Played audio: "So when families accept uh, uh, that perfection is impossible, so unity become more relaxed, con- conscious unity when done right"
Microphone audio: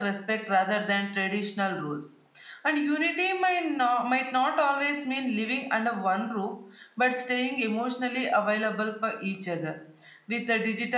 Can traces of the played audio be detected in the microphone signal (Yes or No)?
No